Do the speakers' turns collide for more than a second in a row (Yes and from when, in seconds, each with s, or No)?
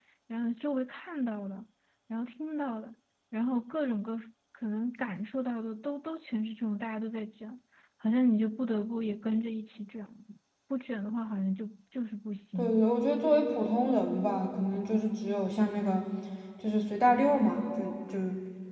No